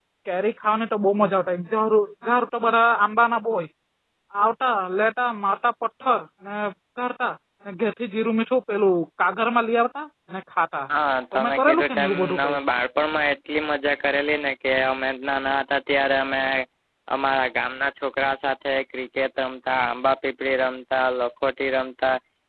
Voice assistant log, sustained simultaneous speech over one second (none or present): present